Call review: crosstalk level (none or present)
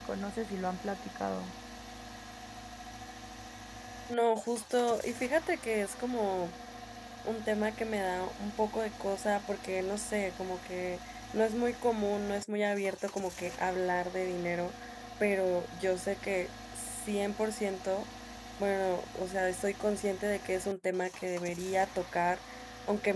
none